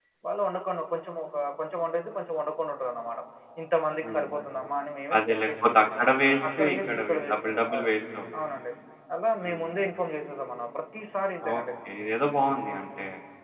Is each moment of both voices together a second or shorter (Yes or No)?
No